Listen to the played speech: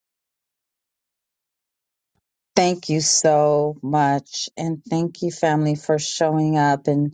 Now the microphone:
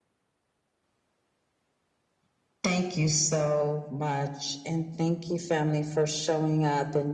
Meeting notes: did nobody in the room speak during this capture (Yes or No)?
Yes